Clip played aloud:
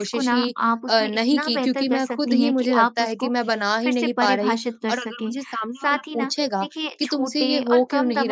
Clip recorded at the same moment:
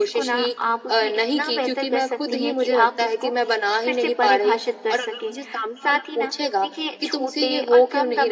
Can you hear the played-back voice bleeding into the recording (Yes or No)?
Yes